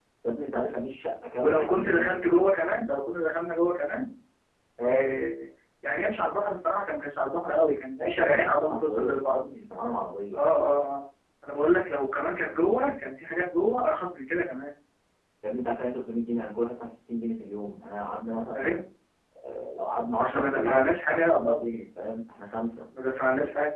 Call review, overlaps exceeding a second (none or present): present